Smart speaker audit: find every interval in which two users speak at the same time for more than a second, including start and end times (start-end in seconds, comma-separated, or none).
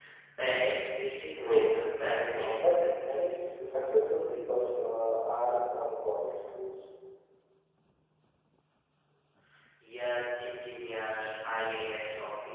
none